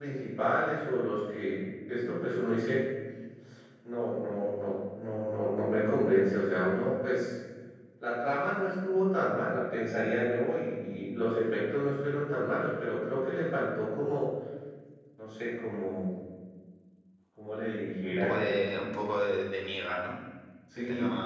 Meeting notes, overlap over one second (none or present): none